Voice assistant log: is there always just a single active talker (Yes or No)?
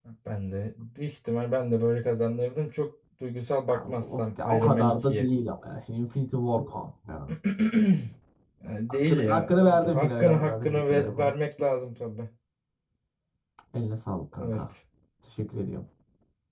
No